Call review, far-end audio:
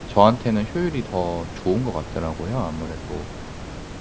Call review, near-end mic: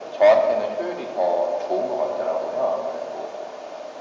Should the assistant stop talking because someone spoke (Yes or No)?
No